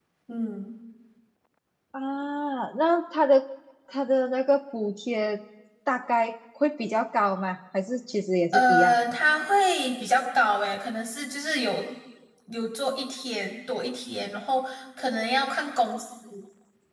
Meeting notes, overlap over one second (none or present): none